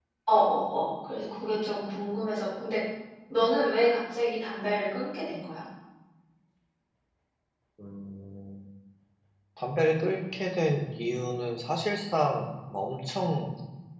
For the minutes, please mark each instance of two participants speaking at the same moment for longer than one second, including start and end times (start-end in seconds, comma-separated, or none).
none